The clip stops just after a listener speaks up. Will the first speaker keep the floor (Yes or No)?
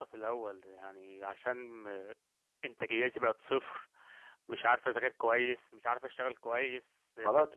No